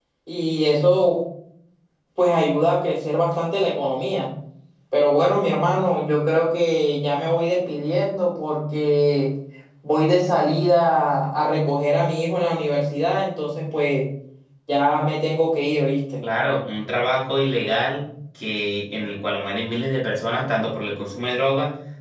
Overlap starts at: none

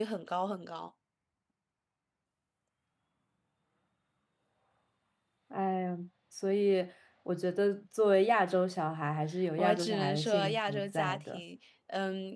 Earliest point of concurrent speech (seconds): 10 s

